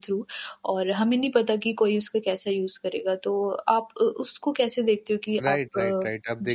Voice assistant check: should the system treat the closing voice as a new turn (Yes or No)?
Yes